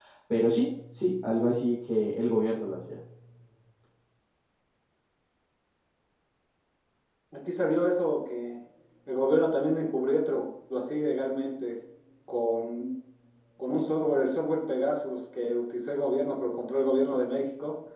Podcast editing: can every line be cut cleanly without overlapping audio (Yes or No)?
Yes